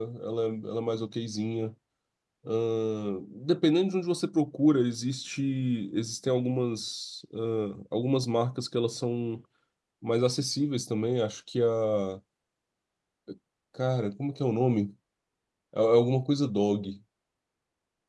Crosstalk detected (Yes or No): No